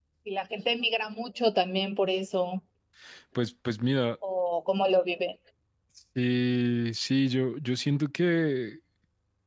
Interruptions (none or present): none